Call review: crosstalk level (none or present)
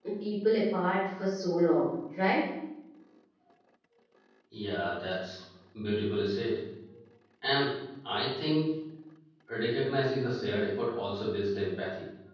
none